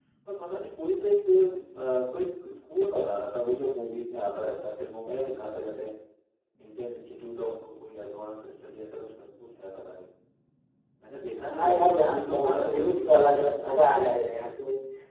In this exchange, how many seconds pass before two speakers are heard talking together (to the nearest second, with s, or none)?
12 s